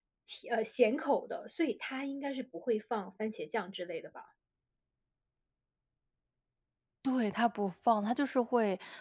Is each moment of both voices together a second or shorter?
Yes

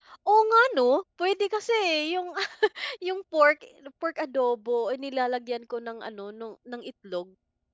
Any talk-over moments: No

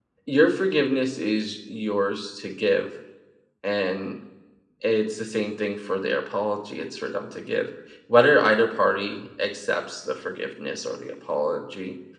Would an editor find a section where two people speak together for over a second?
No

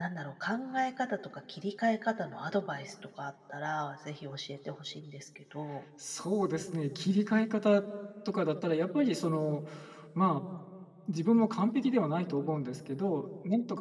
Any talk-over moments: No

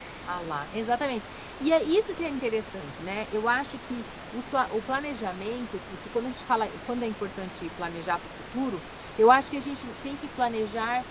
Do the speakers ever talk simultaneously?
No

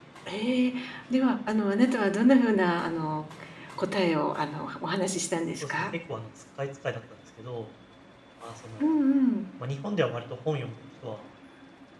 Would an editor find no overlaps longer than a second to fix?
Yes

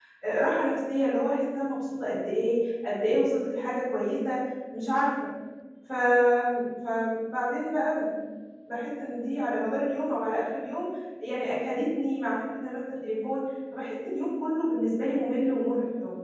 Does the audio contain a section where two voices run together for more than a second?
No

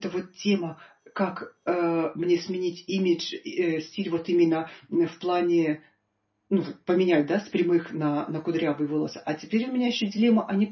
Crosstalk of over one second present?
No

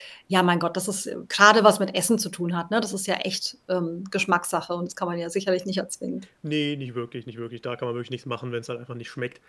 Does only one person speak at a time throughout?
Yes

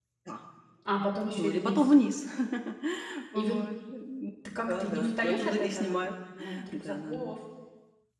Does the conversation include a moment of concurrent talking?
Yes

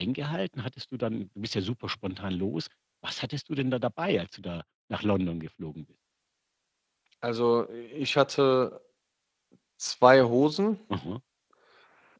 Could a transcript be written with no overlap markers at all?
Yes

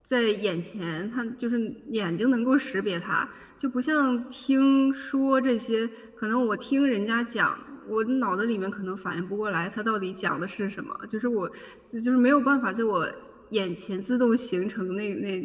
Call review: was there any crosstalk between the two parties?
No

